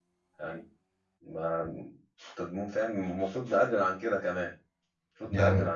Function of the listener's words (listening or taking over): listening